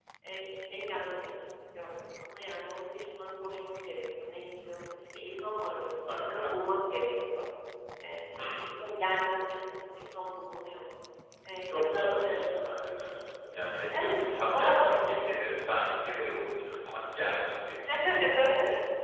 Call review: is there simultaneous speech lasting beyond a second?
Yes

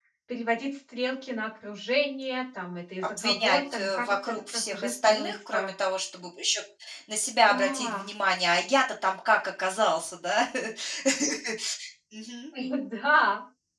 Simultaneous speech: Yes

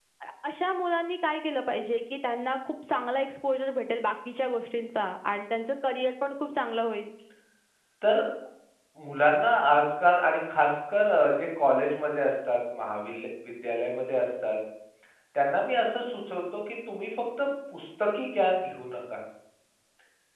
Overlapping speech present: No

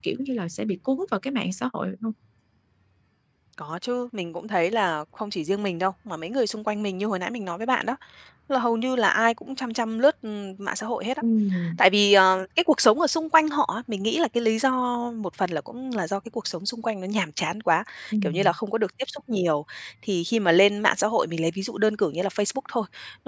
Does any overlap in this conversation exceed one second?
No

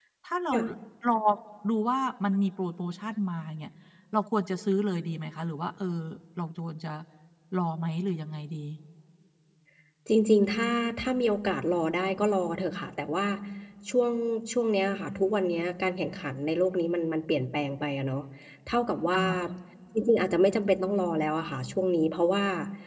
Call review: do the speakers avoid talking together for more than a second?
Yes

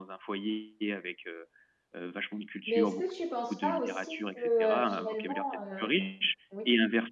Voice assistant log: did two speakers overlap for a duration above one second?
Yes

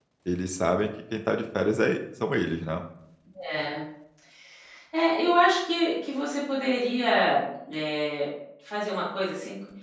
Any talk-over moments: No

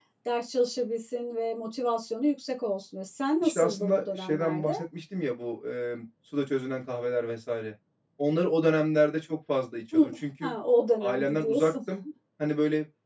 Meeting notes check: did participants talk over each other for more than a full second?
Yes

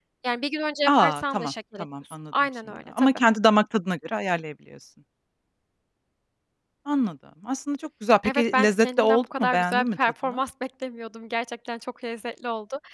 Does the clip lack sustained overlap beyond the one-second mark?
No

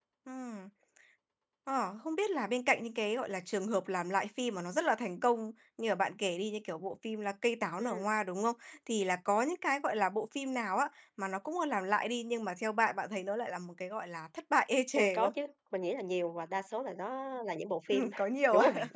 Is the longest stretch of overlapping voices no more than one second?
Yes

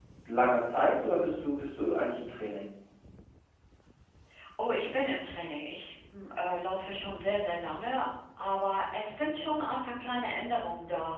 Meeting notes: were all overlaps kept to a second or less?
Yes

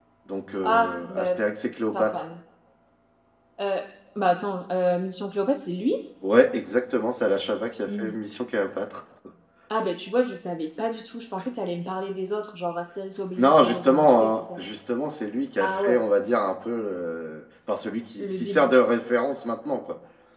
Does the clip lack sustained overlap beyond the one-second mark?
No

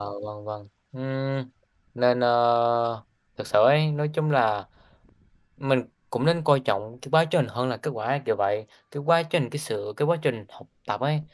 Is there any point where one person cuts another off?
No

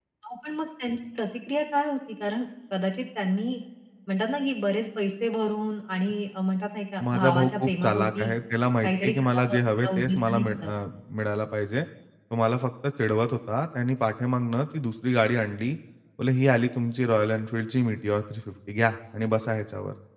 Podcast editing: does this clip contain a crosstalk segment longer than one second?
Yes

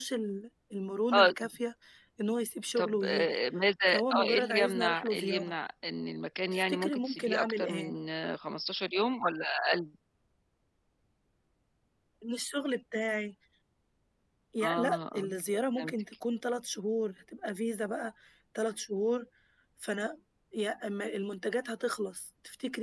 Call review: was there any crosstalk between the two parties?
Yes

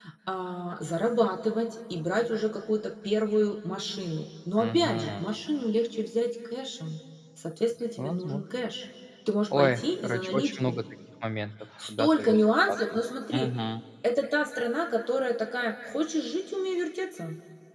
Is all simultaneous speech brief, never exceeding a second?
No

